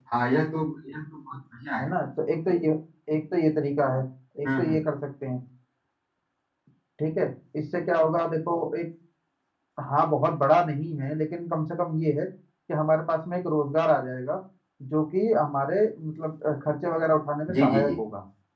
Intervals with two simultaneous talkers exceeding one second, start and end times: none

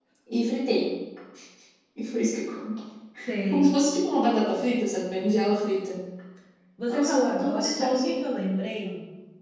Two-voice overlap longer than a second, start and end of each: 6.9-8.1

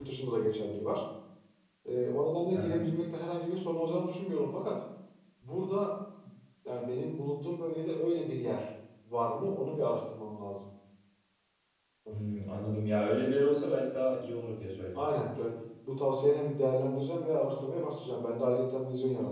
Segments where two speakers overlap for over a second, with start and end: none

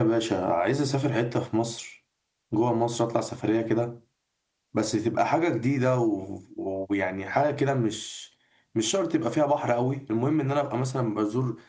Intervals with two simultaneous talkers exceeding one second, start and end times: none

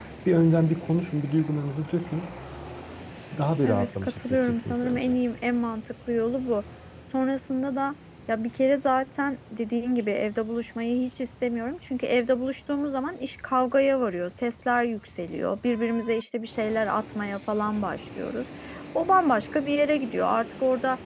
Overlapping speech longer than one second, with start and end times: 3.6-5.2

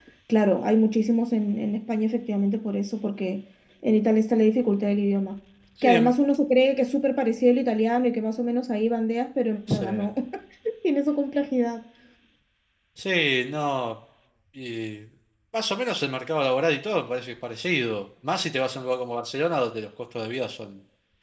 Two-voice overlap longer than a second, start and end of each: none

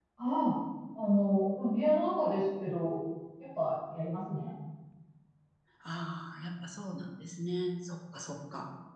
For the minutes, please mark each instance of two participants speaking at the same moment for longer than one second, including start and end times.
none

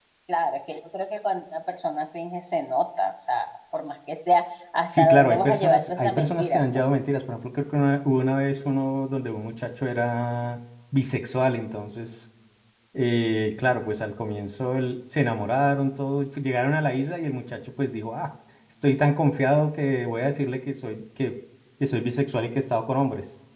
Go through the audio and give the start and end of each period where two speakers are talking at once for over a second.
4.9-6.6

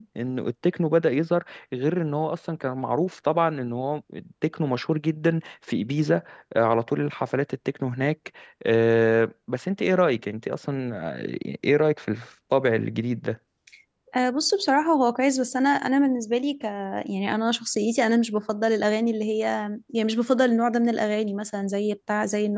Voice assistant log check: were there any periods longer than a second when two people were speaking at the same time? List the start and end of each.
none

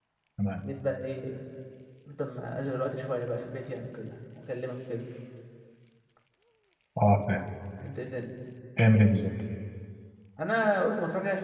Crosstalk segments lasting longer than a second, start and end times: none

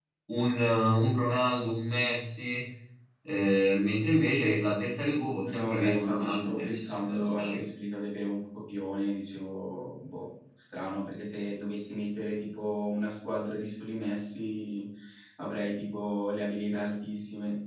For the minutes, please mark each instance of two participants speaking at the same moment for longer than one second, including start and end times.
5.5-7.6

